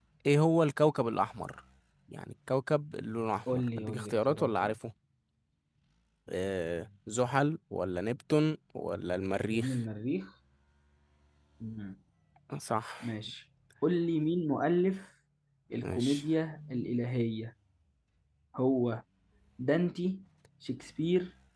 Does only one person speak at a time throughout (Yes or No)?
No